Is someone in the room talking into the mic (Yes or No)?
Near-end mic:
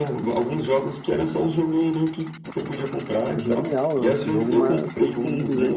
Yes